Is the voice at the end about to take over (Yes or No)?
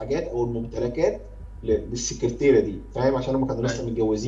No